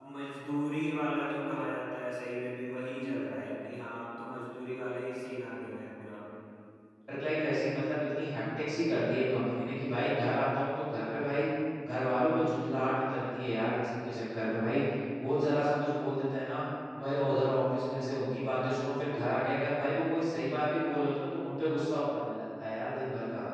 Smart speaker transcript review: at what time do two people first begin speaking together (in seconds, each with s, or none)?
none